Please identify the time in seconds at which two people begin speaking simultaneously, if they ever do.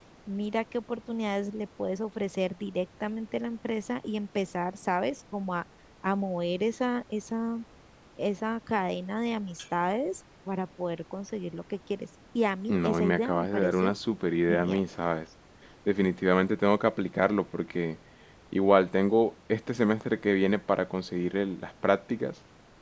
12.7 s

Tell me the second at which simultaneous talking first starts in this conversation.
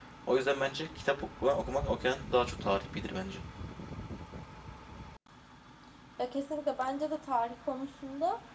none

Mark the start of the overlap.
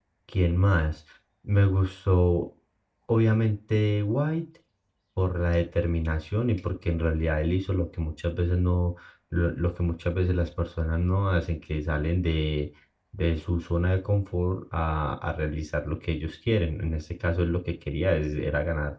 none

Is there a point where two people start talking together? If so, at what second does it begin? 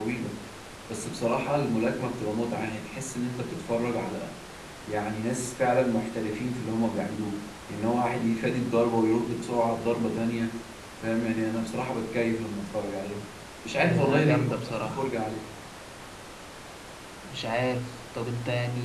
13.8 s

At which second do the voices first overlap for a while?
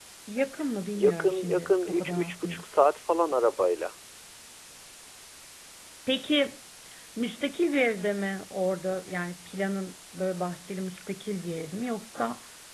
0.9 s

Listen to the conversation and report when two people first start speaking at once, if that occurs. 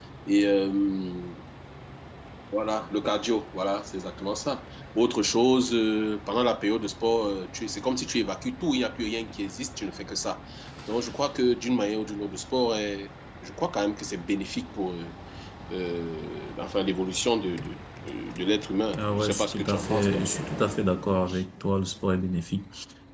18.9 s

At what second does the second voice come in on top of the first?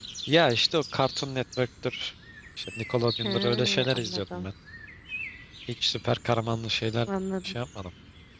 3.2 s

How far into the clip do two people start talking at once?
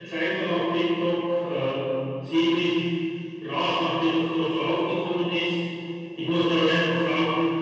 none

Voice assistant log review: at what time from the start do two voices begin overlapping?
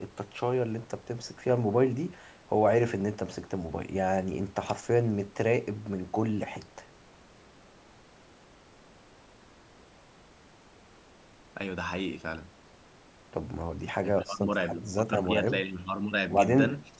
14.0 s

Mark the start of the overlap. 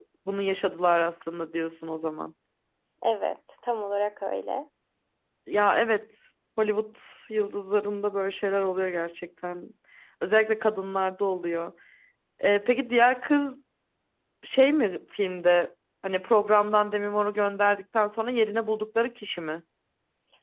none

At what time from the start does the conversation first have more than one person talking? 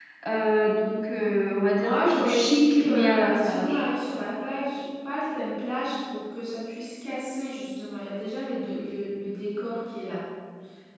1.7 s

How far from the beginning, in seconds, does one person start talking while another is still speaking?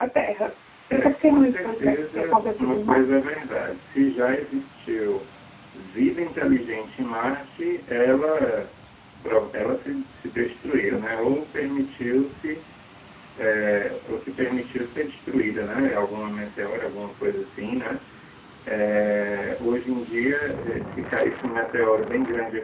1.0 s

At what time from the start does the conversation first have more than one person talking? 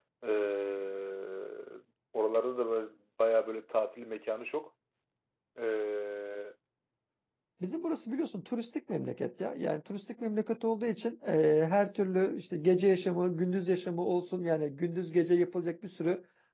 none

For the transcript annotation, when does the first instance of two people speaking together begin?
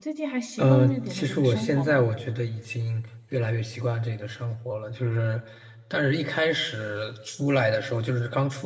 0.6 s

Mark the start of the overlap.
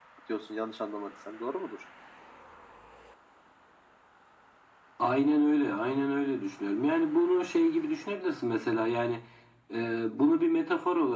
none

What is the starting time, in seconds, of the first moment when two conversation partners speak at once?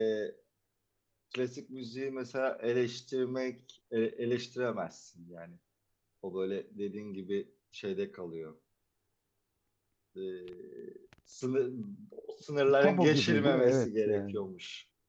12.8 s

